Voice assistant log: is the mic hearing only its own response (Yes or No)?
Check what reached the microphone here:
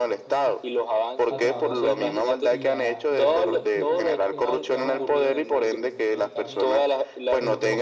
No